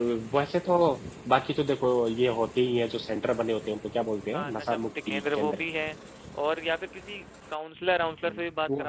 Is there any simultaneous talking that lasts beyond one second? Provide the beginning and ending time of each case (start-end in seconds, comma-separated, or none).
4.3-5.6